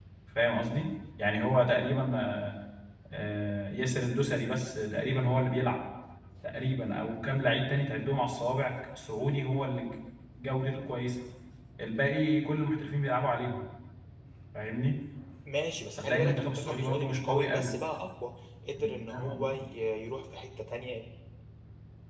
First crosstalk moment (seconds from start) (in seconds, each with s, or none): 16.0 s